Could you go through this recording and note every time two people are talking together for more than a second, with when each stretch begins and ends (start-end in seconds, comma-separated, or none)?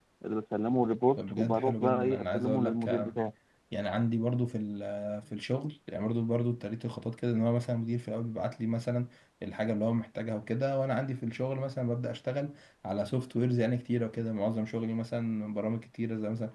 1.2-2.9